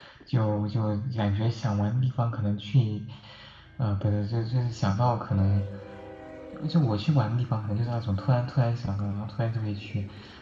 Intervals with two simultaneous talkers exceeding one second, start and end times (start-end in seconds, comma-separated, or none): none